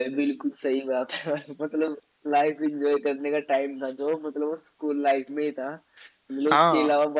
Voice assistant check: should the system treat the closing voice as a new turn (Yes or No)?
No